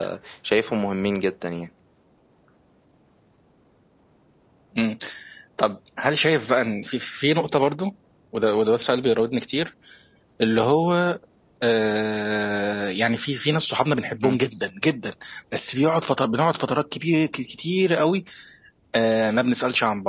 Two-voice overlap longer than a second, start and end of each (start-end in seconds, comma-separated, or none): none